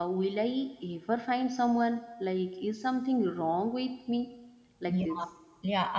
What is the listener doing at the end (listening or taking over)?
taking over